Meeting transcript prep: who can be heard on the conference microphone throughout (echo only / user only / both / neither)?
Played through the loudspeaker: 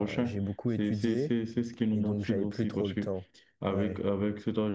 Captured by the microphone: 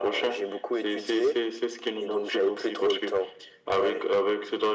echo only